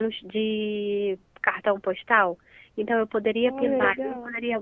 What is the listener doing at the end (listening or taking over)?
listening